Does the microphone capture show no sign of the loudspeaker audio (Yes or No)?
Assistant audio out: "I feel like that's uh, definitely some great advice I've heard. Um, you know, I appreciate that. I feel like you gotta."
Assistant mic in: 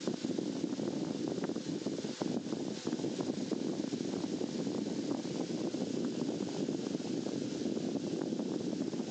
Yes